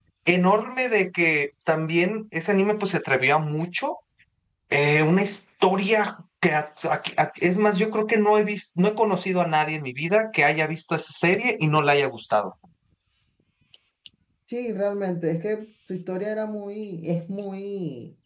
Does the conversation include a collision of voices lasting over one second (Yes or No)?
No